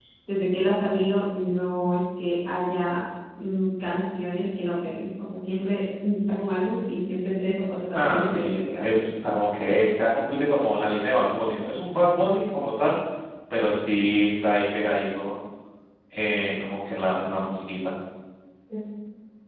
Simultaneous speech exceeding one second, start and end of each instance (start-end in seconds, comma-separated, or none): 7.9-9.2